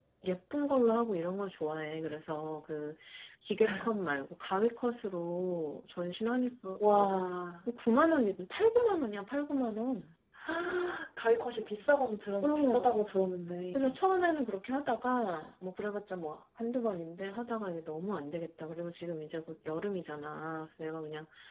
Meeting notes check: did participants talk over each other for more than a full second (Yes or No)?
No